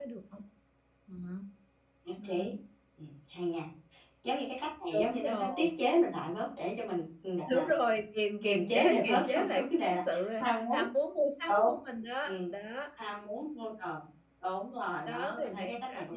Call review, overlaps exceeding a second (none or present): present